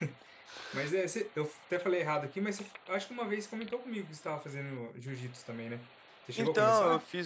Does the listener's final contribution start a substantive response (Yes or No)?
Yes